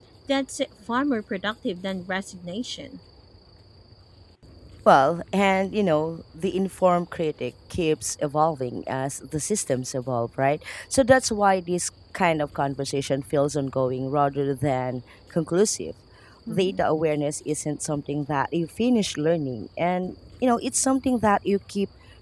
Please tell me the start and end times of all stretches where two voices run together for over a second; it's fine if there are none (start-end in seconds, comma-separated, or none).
none